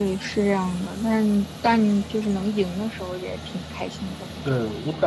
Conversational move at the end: taking over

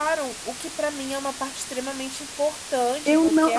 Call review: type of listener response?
taking over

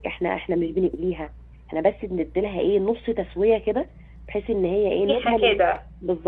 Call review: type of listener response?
listening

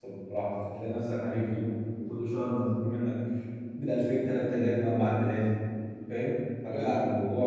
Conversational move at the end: listening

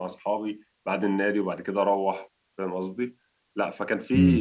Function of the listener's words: listening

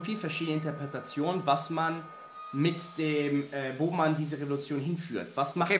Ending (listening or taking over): taking over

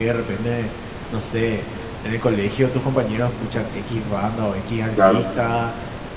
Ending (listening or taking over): listening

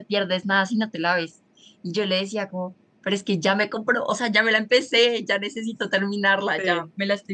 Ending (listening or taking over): listening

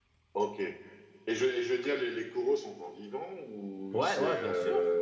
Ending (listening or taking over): taking over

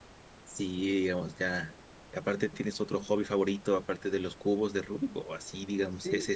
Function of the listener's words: taking over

